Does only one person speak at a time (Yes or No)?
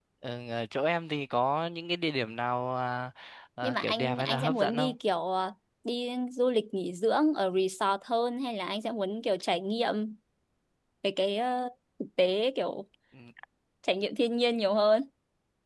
No